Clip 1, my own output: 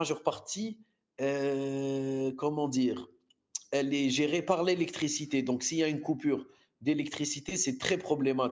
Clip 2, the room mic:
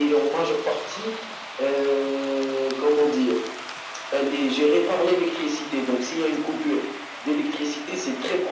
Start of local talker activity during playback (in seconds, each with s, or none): none